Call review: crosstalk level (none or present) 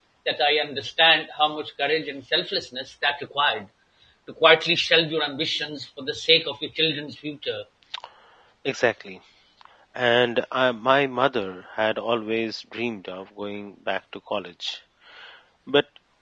none